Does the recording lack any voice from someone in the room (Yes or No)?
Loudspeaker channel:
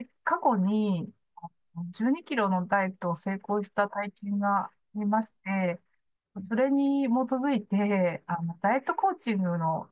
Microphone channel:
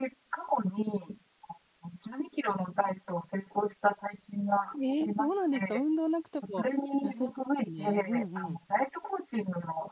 No